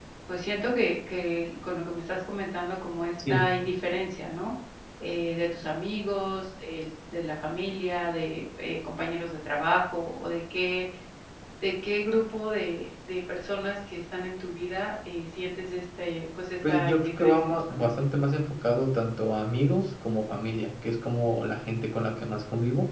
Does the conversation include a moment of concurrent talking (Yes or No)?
Yes